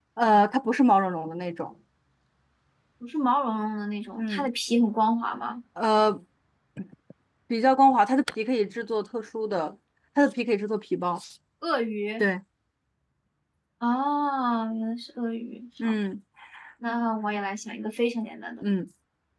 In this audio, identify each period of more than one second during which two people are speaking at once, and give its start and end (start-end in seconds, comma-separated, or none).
none